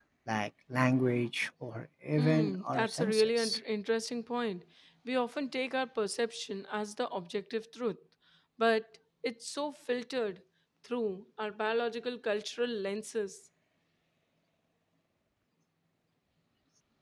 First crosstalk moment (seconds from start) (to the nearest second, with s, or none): 2 s